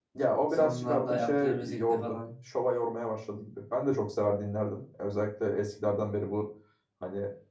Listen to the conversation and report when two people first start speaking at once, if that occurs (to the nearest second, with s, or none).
1 s